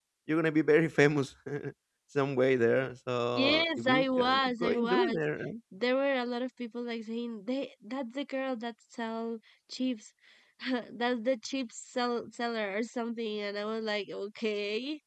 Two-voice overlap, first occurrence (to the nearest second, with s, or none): 3 s